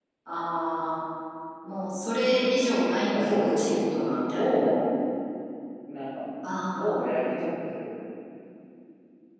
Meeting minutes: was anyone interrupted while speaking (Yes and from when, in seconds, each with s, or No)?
Yes, from 3.1 s